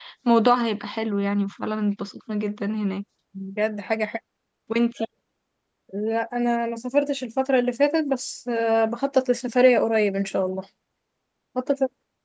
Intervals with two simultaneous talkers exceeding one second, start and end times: none

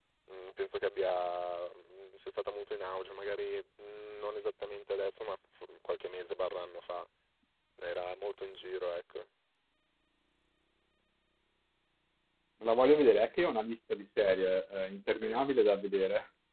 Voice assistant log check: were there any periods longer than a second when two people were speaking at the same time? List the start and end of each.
none

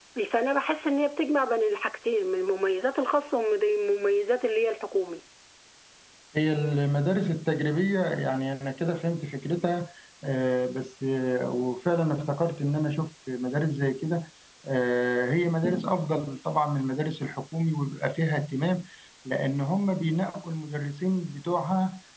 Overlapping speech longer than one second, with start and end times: none

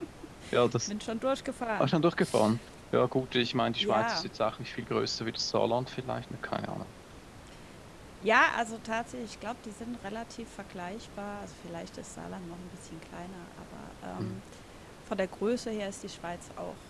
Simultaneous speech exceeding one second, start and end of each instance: none

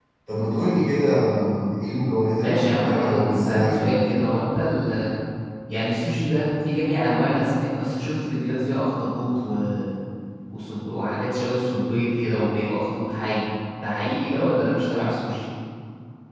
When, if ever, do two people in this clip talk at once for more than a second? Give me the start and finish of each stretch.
2.4-4.0

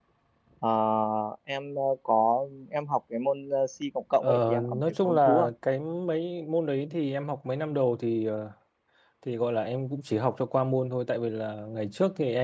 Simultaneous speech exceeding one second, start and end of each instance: 4.2-5.5

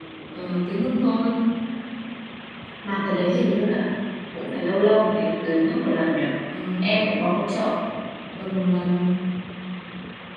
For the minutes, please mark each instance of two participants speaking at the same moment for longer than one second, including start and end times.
none

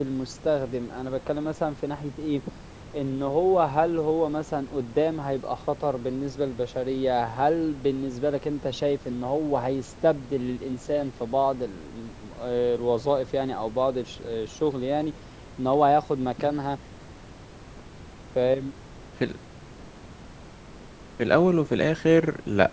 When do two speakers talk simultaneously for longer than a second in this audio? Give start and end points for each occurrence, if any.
none

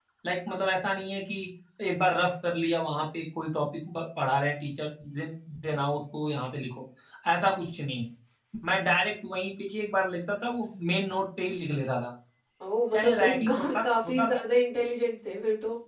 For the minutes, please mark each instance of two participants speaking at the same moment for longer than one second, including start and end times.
12.9-14.4

